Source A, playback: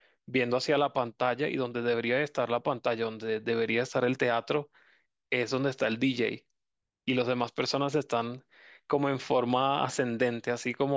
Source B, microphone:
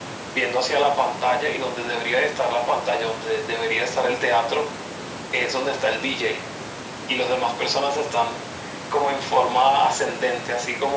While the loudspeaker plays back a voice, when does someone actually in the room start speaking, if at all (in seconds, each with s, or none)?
none